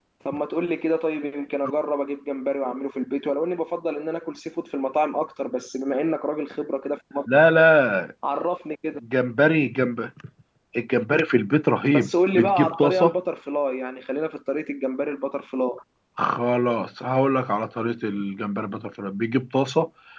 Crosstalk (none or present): present